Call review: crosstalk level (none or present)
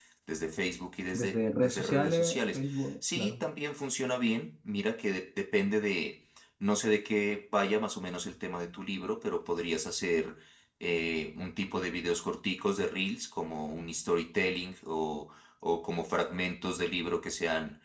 present